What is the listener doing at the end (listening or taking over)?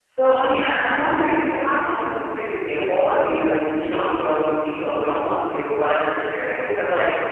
listening